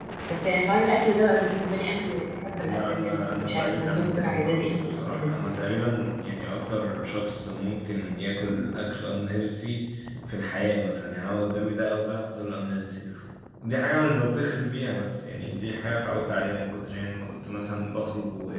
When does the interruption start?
2.6 s

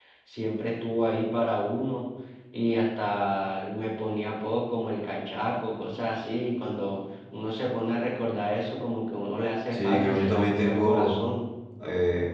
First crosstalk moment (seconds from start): 9.7 s

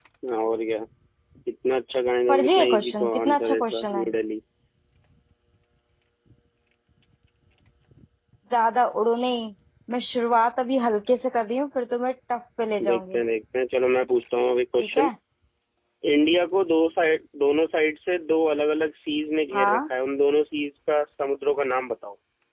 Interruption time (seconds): 2.3 s

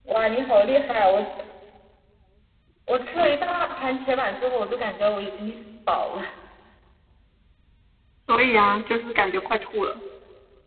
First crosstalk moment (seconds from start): none

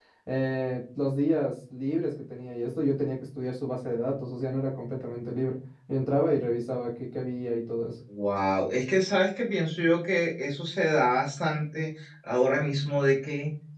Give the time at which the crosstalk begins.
none

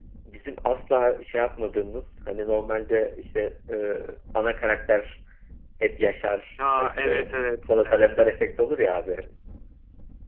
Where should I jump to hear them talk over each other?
6.6 s

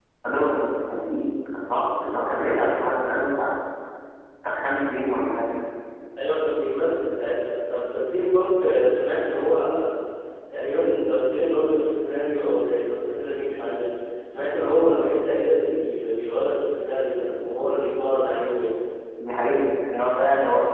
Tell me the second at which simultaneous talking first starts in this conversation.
none

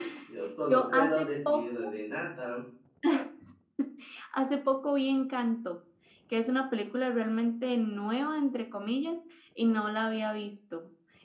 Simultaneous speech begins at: 0.7 s

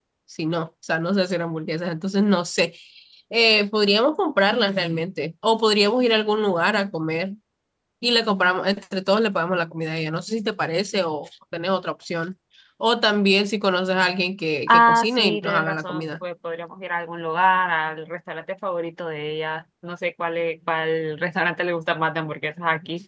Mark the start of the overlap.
14.7 s

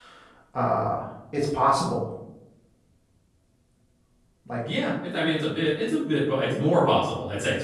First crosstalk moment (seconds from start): none

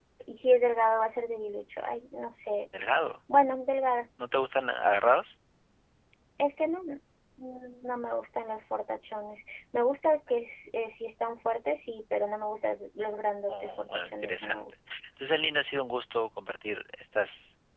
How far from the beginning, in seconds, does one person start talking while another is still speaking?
13.5 s

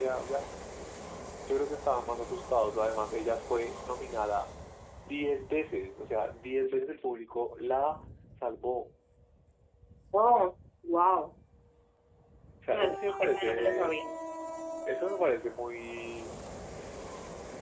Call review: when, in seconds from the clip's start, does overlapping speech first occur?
12.7 s

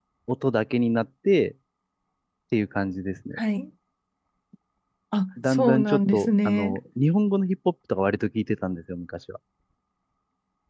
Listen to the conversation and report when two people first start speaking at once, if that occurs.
5.5 s

